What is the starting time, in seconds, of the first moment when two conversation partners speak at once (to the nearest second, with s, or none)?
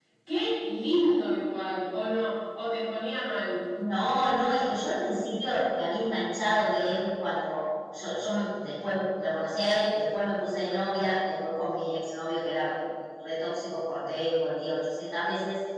none